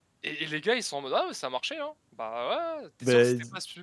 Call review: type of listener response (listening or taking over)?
listening